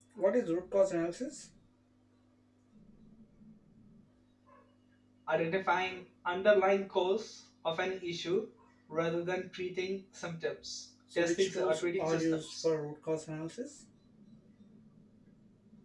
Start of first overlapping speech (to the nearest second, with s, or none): 11 s